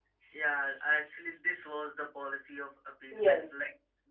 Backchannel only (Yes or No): Yes